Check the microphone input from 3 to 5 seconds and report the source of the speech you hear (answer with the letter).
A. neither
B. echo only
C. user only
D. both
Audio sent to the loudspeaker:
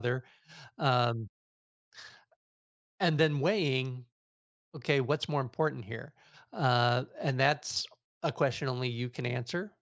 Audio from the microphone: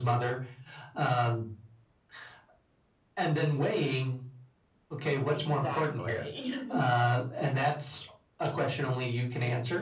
B